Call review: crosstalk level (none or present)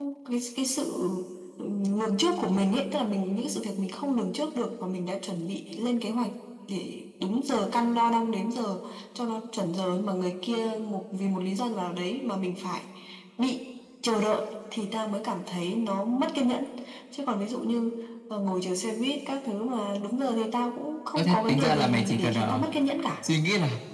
present